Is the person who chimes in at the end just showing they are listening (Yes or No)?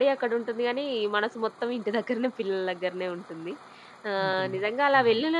Yes